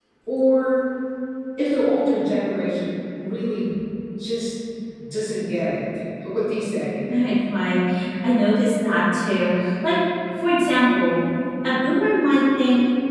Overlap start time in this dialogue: none

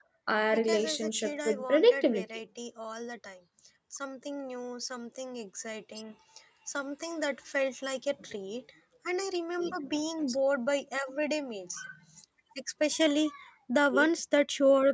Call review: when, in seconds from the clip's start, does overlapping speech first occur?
0.5 s

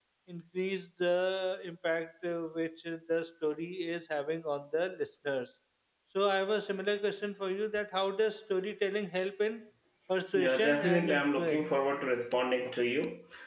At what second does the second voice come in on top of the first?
10.3 s

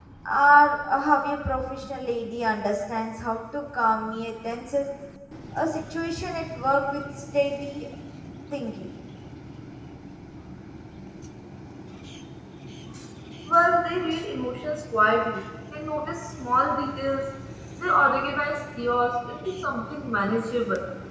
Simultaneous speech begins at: none

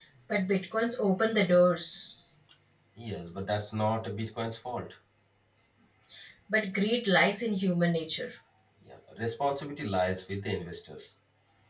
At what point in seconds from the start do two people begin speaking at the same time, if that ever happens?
none

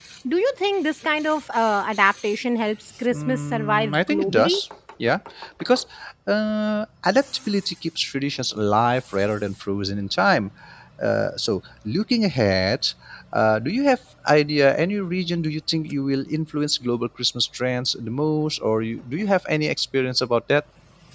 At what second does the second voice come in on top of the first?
3.1 s

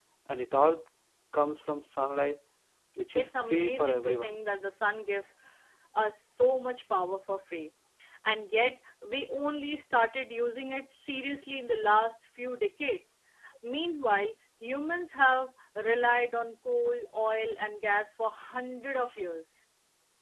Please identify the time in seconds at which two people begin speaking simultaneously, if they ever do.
3.1 s

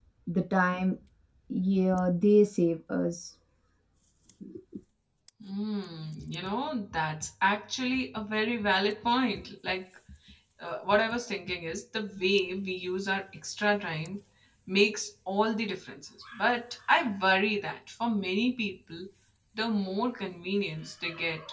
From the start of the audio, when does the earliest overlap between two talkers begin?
none

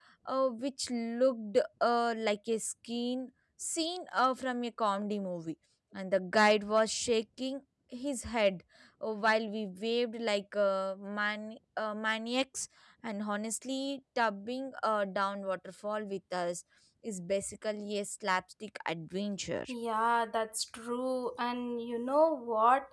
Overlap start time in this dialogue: none

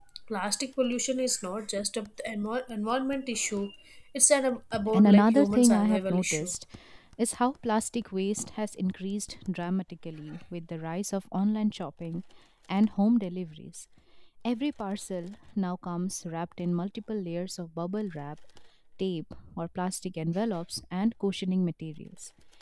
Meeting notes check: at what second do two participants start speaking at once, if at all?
4.9 s

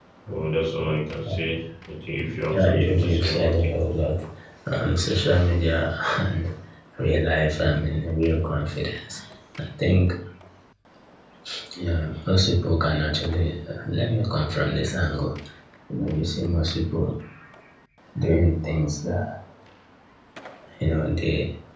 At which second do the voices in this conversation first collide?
2.5 s

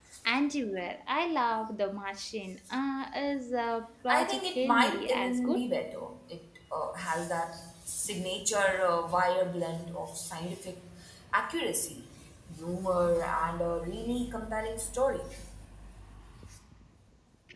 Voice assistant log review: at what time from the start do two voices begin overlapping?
4.1 s

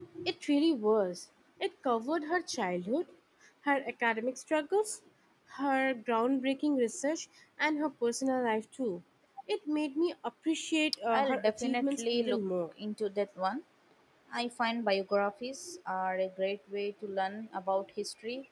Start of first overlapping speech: 11.1 s

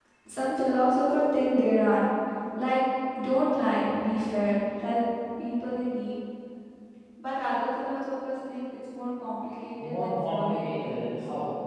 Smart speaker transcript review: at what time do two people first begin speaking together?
9.8 s

